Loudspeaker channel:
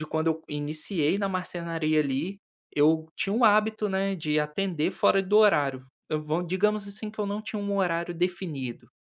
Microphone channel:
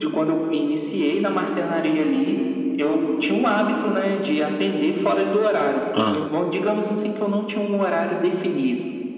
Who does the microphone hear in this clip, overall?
both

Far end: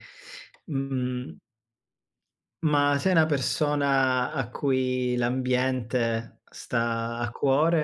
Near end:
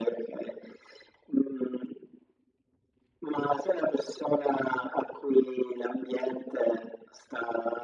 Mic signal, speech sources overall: echo only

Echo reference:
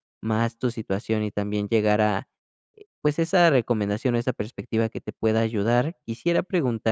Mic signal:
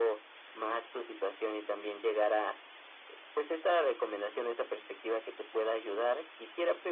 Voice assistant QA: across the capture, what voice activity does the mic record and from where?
echo only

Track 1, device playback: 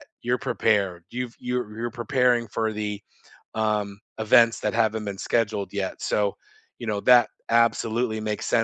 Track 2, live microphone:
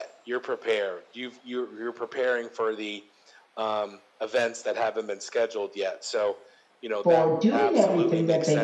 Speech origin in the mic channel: both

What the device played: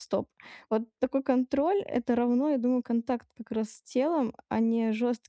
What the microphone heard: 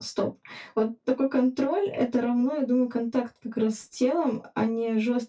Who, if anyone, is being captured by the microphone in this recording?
echo only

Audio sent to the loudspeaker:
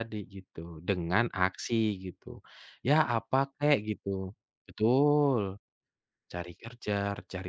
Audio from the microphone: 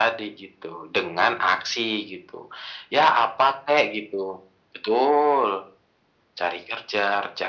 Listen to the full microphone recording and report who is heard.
echo only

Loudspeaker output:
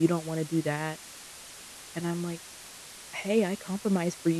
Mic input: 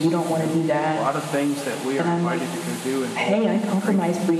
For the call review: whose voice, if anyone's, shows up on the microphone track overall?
both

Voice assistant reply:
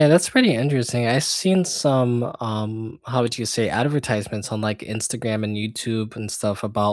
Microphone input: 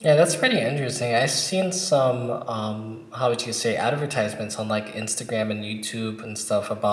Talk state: echo only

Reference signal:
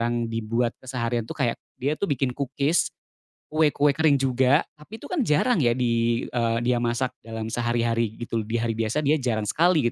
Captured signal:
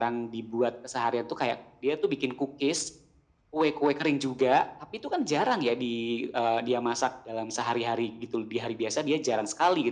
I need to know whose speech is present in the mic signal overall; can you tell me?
echo only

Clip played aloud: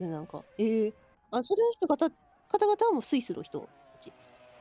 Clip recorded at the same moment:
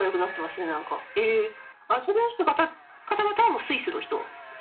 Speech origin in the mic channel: echo only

